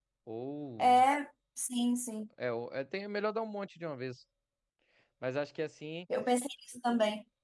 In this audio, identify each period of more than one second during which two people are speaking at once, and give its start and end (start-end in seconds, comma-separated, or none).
none